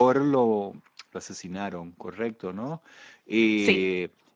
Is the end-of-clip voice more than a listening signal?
No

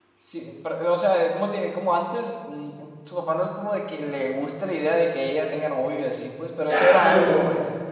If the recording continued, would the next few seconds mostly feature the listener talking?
Yes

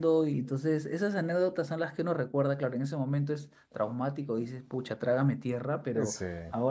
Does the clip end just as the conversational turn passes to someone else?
No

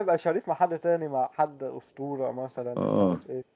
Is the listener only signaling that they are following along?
No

